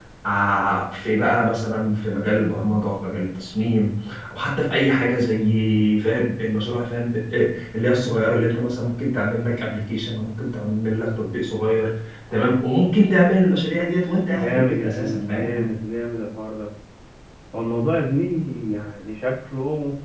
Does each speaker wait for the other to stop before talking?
No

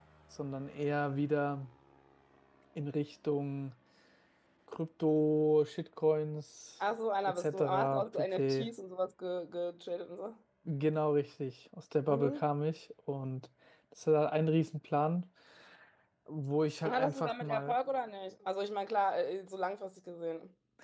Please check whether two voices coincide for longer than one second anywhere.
Yes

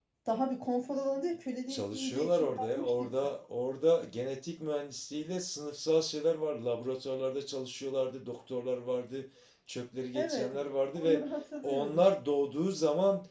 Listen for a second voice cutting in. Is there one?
Yes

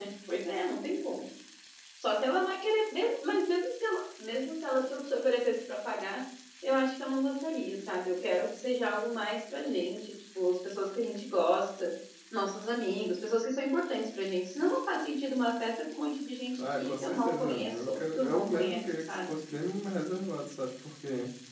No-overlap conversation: No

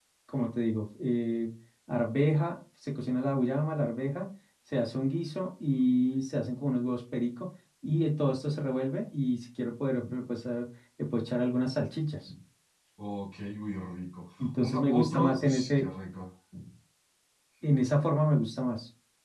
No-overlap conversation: No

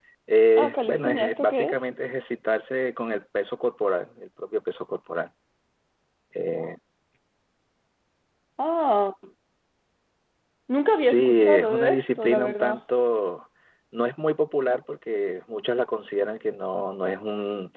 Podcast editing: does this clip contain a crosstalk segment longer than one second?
Yes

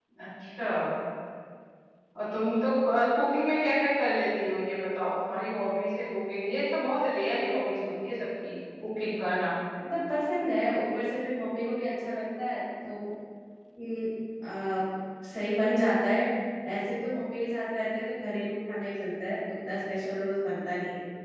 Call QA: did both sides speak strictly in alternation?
Yes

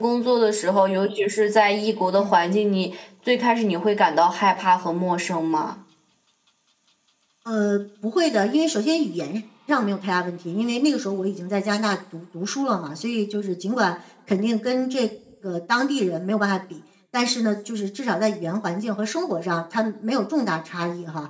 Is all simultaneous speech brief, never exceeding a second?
Yes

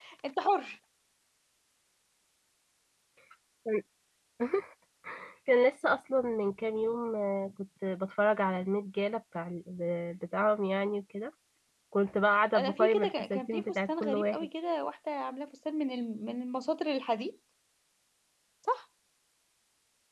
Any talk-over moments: Yes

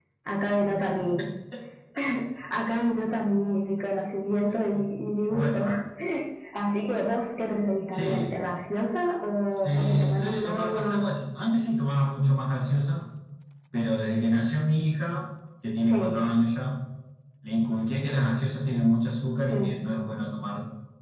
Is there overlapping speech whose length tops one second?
Yes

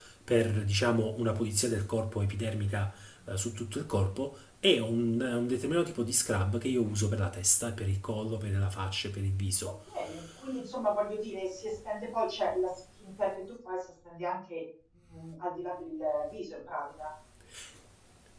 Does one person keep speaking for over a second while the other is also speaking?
No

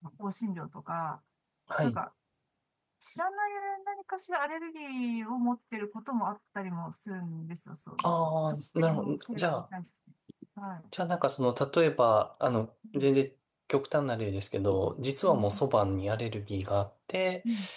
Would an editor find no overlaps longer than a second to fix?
No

